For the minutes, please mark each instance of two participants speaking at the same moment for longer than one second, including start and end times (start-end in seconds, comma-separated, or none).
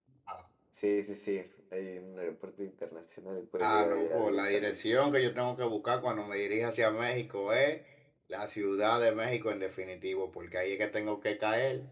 3.6-4.8